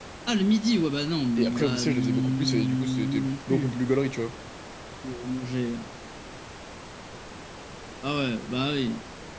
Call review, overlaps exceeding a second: present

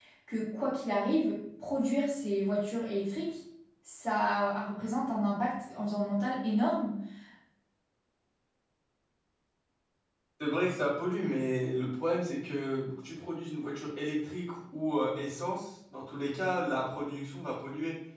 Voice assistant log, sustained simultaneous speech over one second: none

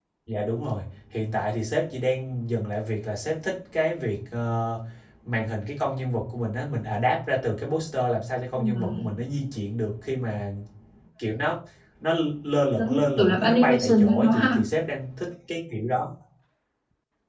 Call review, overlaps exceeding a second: present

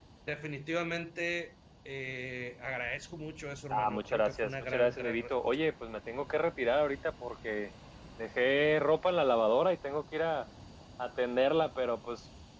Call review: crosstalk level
present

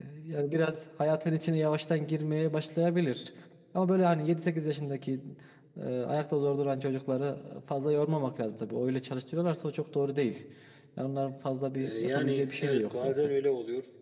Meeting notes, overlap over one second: present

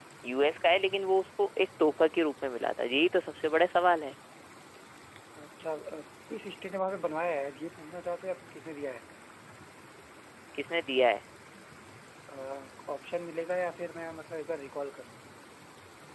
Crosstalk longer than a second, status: none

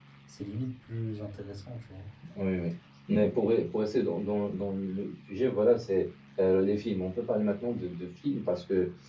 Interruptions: none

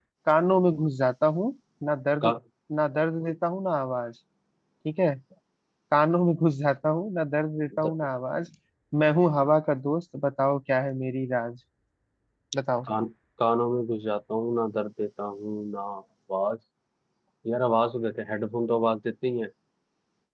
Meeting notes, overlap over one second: none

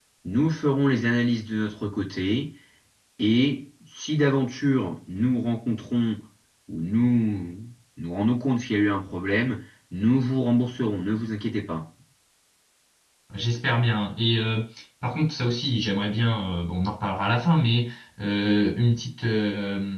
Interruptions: none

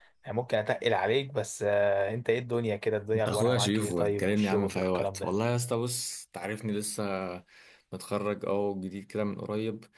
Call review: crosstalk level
present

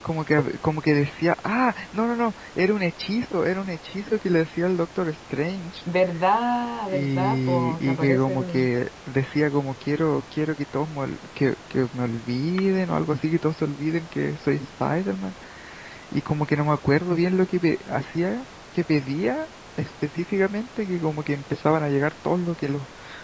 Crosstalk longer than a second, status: present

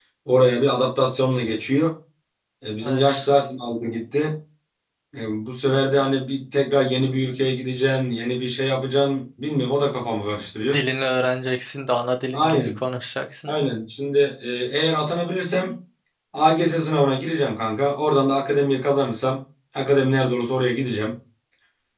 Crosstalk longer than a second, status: none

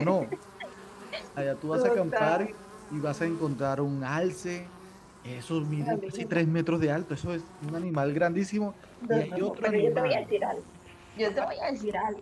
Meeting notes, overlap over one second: present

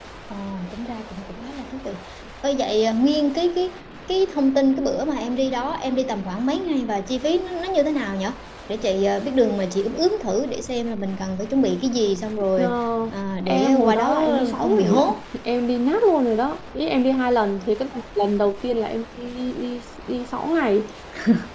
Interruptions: present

